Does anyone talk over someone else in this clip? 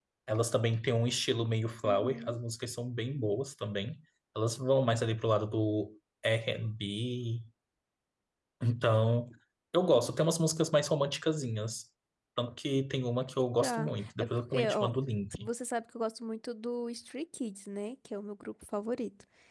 Yes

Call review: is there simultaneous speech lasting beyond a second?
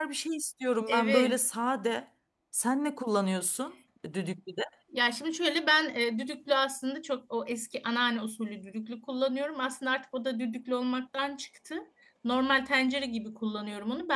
No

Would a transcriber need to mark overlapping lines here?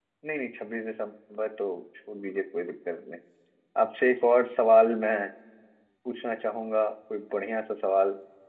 No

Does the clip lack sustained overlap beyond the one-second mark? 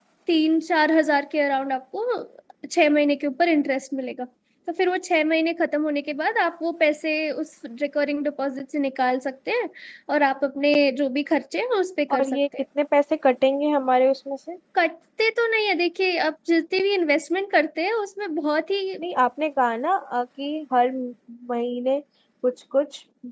Yes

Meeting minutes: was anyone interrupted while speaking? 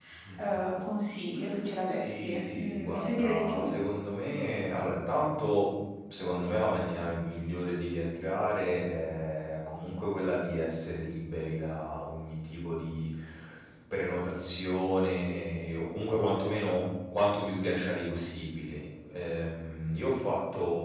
Yes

